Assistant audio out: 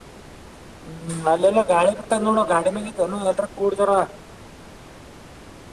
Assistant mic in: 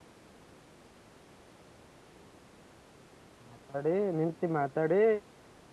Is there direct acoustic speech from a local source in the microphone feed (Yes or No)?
Yes